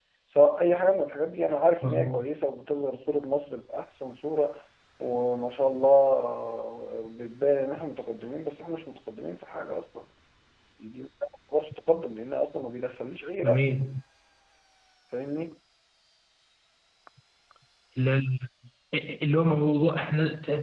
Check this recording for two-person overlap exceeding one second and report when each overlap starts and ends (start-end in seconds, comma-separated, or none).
none